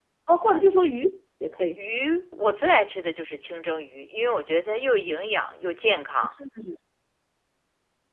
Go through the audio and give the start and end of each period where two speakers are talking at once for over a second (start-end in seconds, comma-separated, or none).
none